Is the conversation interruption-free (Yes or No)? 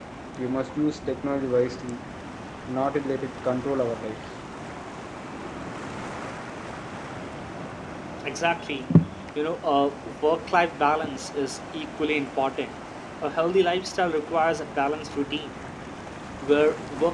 Yes